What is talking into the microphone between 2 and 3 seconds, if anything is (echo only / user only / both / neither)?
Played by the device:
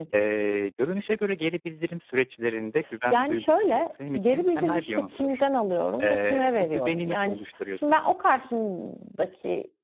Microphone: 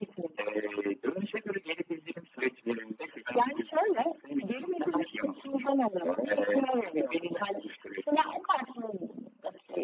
echo only